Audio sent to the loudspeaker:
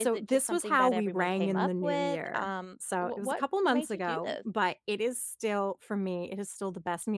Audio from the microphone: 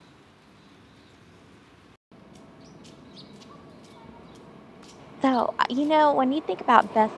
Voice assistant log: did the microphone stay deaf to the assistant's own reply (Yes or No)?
Yes